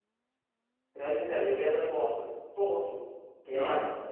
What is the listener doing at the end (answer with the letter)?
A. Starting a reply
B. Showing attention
B